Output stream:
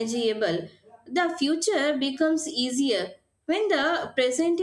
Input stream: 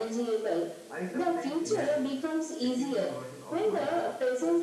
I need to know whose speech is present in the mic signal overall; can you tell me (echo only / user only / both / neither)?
both